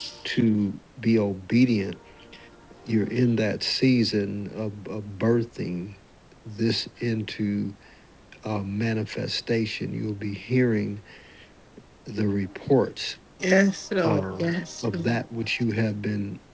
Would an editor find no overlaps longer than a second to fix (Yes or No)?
Yes